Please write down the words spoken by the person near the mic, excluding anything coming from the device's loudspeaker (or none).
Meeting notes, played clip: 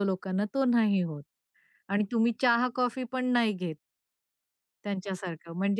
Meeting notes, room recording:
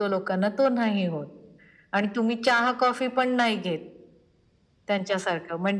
none